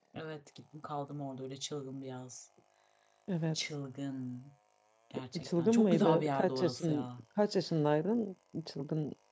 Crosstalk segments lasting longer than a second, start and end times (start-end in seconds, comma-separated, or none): 5.4-7.0